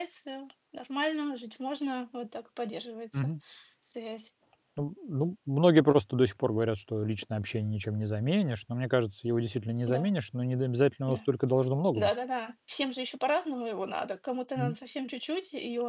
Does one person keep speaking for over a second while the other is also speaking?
No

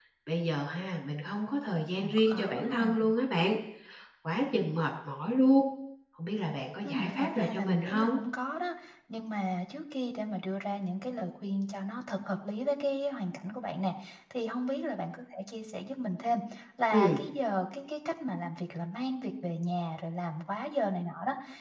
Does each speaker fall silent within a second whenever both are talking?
No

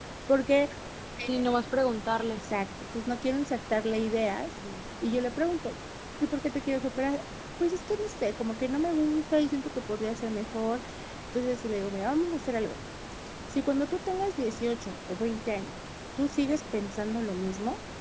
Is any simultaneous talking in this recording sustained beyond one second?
No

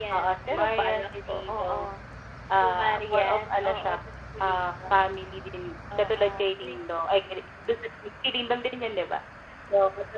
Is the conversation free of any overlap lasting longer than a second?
No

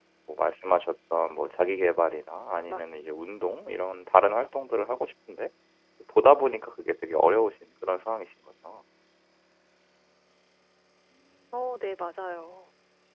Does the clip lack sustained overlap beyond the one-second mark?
Yes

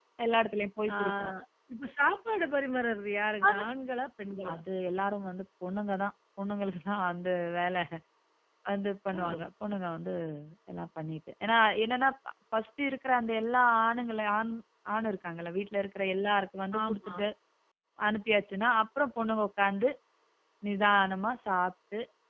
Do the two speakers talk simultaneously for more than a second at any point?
No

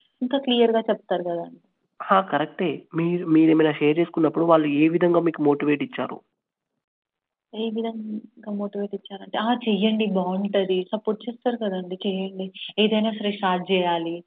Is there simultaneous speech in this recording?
No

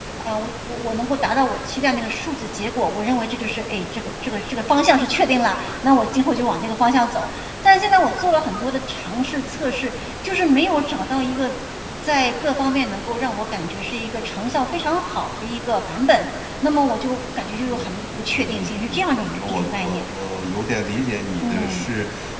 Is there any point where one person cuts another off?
Yes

